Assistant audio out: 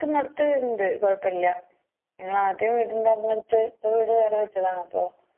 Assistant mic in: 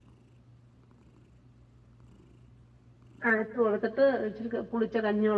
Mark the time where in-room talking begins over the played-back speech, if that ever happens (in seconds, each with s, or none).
3.2 s